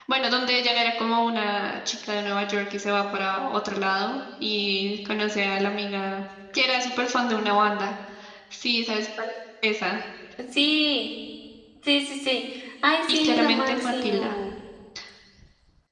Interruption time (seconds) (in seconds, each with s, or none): 13.1 s